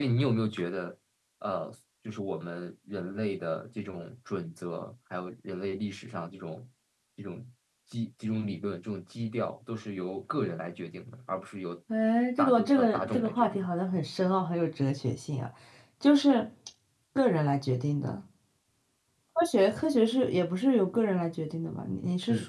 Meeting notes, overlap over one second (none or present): present